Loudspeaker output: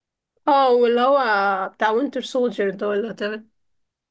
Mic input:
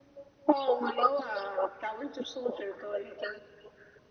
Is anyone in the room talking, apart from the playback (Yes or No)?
No